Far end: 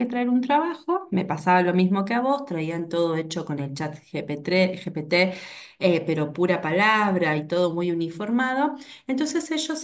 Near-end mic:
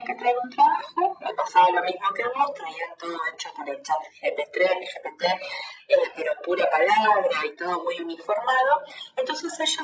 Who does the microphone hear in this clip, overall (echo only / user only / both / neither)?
echo only